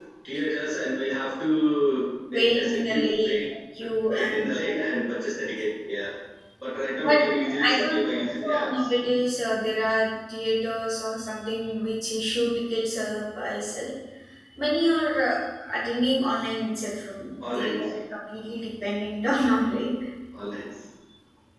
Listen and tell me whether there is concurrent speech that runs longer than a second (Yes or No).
Yes